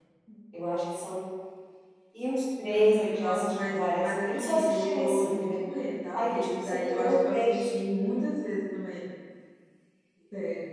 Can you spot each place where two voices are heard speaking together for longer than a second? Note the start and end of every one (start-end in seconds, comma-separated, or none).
2.7-5.5, 6.1-7.7